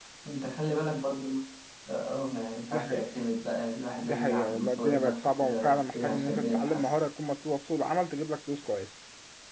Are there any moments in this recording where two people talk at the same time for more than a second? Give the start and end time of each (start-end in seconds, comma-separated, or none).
4.0-6.9